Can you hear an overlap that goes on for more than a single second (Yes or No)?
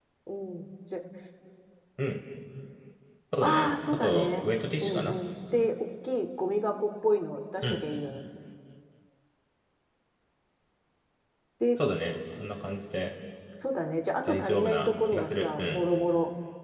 Yes